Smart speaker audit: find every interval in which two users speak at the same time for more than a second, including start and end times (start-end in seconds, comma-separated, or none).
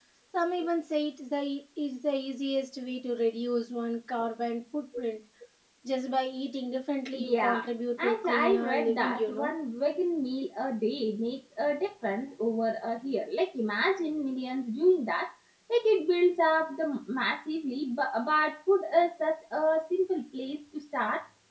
8.0-9.5